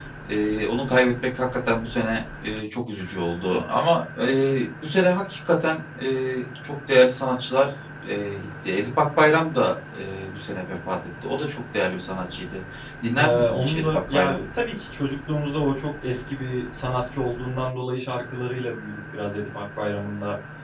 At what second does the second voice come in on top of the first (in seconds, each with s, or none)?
13.2 s